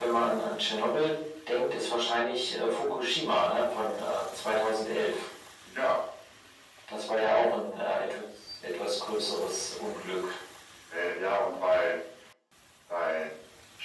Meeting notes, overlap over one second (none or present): none